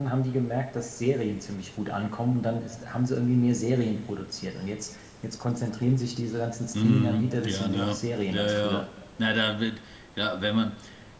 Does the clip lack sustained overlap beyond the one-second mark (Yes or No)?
No